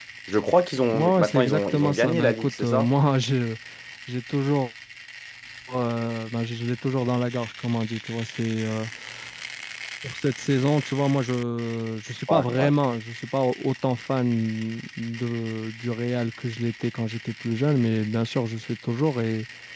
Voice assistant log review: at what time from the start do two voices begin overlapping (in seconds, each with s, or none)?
0.9 s